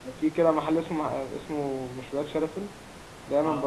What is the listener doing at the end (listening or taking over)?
listening